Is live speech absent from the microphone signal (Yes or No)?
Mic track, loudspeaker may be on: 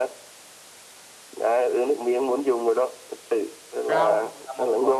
No